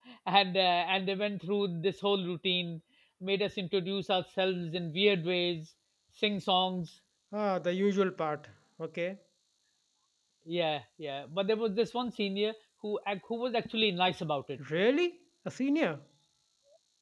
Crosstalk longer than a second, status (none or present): none